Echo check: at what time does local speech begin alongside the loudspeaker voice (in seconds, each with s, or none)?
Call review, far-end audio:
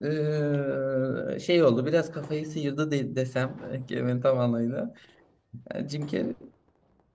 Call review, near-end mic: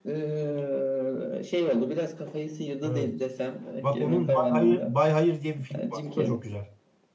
2.8 s